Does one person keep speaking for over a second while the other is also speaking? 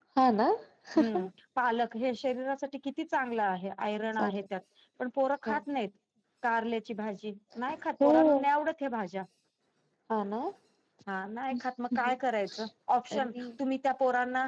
No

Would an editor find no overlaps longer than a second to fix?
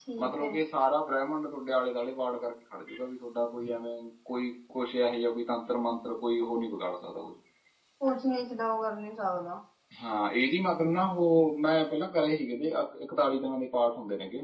Yes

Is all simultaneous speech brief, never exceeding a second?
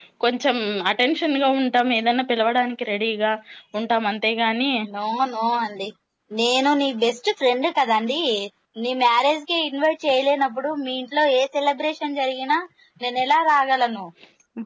Yes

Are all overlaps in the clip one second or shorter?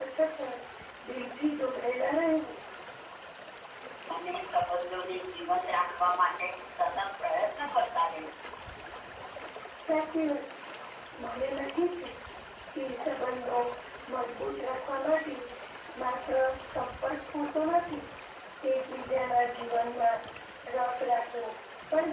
Yes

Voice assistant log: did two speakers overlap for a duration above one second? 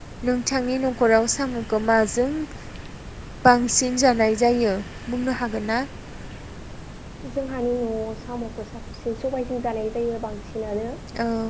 No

